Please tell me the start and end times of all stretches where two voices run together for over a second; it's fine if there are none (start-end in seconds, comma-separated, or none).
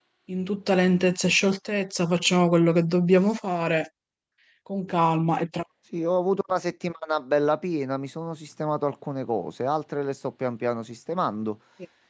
none